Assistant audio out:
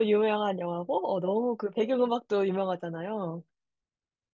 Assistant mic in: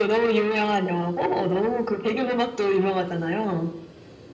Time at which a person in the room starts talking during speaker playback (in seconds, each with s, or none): none